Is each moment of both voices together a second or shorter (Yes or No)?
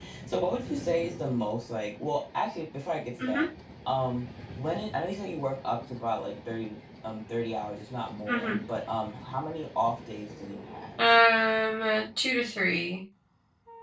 Yes